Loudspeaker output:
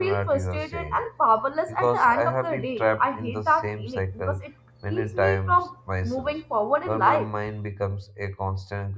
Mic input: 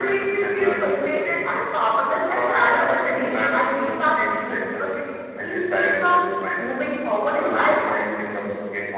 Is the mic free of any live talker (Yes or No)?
Yes